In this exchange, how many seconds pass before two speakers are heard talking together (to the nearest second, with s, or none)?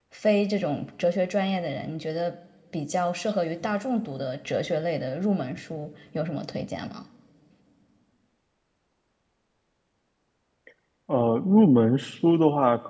none